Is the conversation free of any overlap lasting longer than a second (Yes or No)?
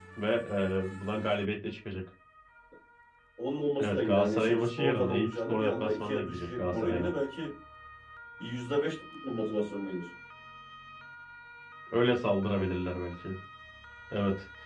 No